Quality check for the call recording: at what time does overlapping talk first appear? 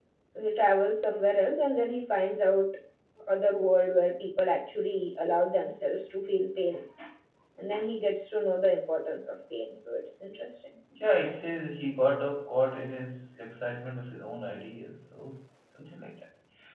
none

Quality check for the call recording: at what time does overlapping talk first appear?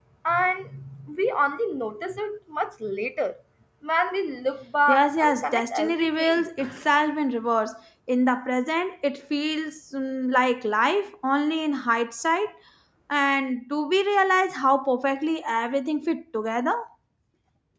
4.9 s

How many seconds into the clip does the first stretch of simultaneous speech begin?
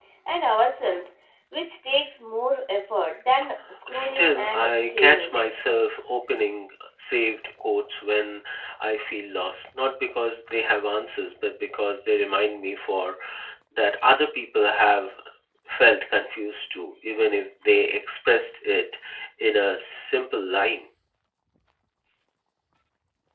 3.9 s

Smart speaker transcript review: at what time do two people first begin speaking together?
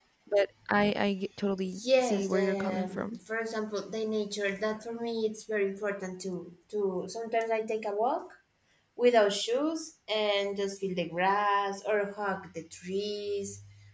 1.8 s

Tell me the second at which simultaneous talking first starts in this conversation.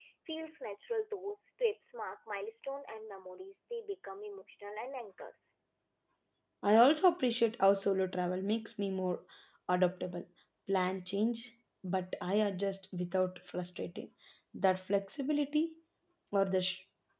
none

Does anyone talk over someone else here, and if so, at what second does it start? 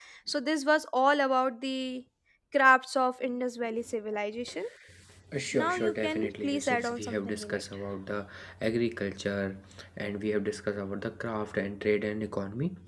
5.5 s

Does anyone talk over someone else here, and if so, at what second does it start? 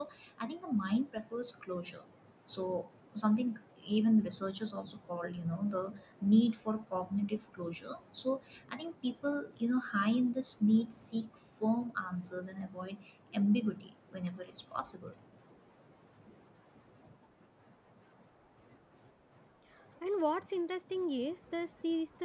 none

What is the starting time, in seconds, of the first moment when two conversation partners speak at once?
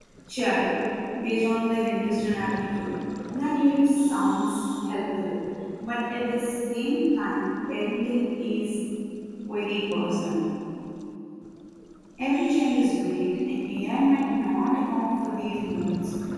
none

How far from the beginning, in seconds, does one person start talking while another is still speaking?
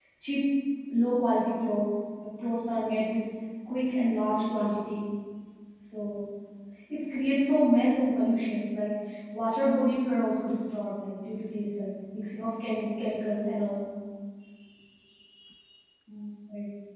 none

